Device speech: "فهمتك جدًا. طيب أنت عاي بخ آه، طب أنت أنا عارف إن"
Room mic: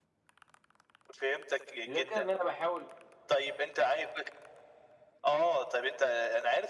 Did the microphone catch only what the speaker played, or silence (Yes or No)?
No